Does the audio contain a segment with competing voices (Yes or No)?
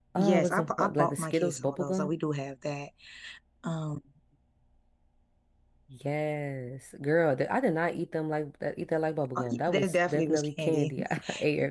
Yes